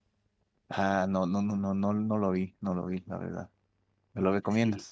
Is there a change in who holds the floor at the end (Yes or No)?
Yes